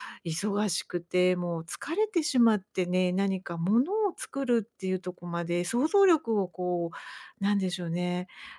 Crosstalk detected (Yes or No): No